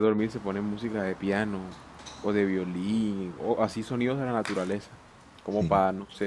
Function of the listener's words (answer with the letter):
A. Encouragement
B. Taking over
A